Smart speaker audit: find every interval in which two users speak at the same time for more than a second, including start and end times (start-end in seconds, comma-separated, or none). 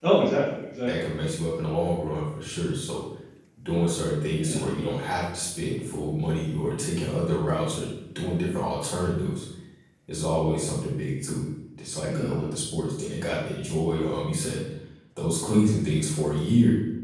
none